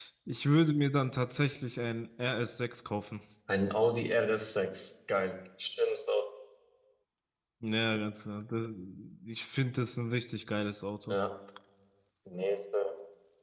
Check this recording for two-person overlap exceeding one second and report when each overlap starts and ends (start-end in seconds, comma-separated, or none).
none